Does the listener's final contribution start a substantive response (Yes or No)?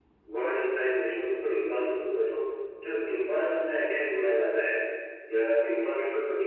No